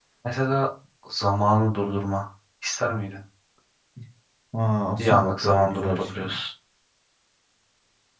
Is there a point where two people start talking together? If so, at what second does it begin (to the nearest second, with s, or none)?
5 s